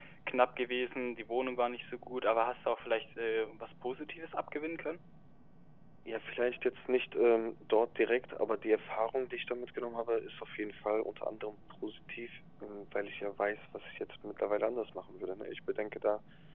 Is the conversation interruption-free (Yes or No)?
Yes